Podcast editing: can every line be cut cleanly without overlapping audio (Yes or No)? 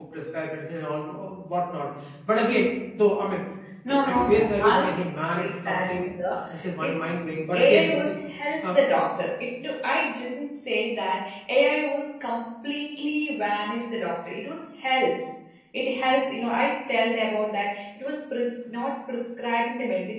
No